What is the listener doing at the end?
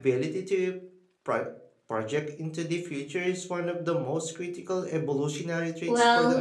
taking over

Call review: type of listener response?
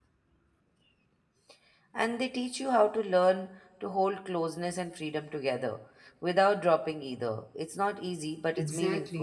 taking over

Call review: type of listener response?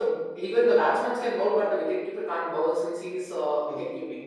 taking over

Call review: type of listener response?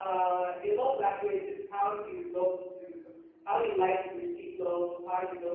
listening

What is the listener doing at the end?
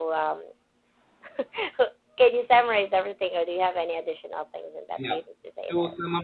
taking over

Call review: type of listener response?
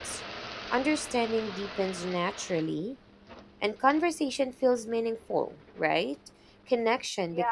taking over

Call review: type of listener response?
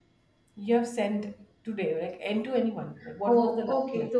taking over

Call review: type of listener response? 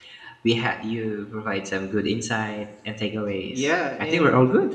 taking over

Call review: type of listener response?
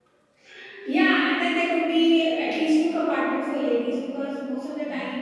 listening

